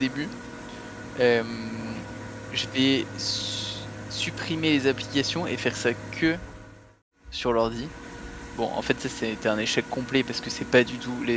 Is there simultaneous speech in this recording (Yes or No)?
No